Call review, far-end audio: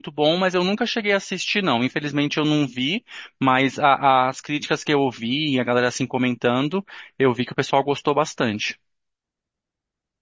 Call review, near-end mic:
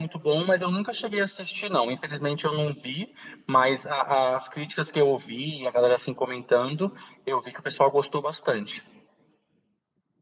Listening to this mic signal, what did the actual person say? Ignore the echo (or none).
none